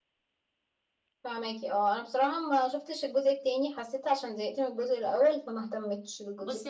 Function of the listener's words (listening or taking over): taking over